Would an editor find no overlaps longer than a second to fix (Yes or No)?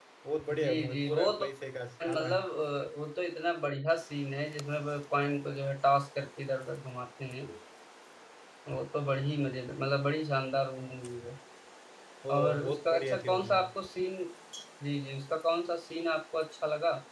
No